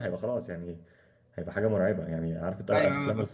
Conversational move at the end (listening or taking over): listening